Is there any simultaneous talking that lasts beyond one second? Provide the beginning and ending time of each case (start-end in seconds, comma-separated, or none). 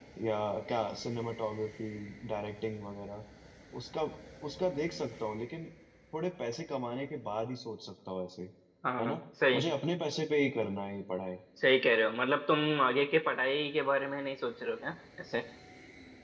none